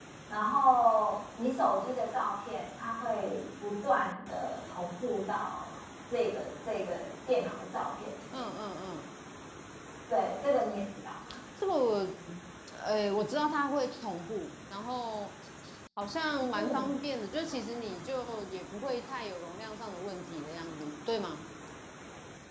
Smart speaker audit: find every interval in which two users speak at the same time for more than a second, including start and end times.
none

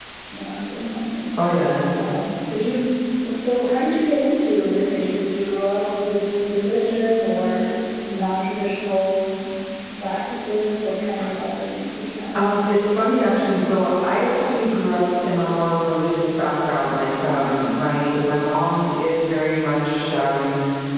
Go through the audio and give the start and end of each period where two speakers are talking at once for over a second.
none

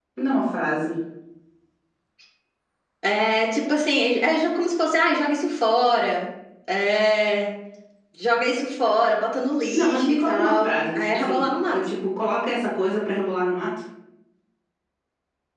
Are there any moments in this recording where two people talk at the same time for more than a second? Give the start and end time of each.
9.7-11.8

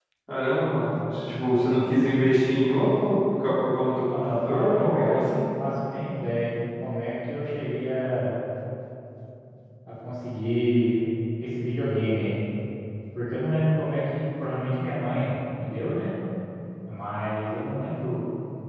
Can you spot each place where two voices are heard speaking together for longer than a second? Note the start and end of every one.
4.0-5.5

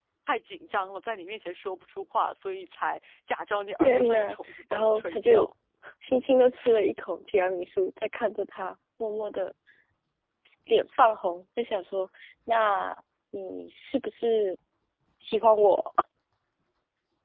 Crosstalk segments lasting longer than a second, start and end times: 3.8-5.5

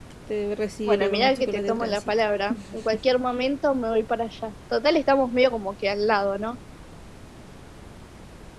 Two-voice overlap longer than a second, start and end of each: 0.9-2.1

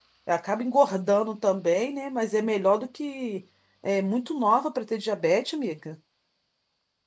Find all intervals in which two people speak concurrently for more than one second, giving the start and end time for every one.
none

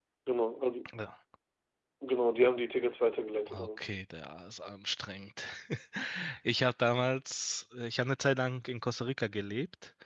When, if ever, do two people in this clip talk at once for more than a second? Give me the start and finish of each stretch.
none

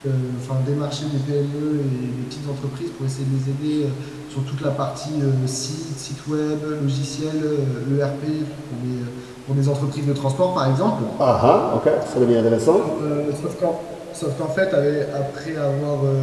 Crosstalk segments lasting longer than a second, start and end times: none

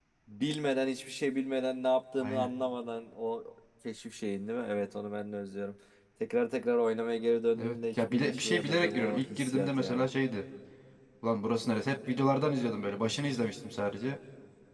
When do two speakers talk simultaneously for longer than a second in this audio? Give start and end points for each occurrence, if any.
7.6-10.1

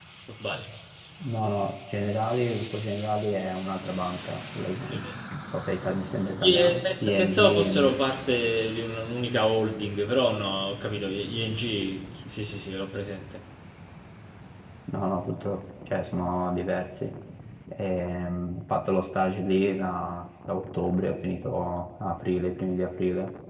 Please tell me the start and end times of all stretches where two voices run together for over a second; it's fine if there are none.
6.3-8.0

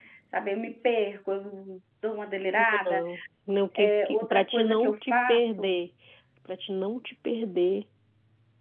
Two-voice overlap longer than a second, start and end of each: 3.8-5.8

